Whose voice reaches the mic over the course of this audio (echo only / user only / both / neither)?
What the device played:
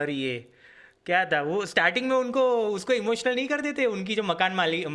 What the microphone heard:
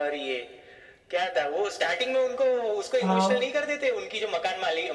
both